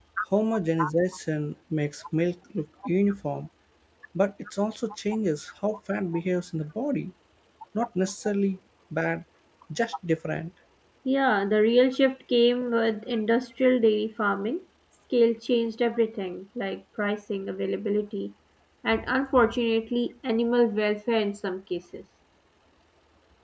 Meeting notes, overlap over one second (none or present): none